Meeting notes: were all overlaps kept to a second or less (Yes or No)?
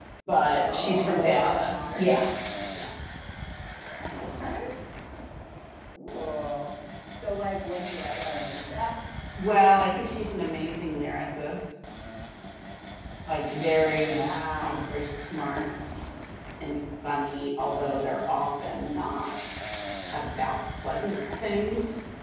No